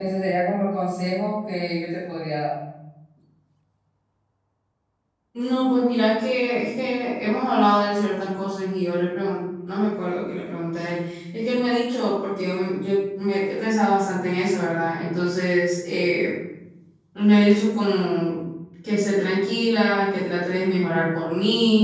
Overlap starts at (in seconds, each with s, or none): none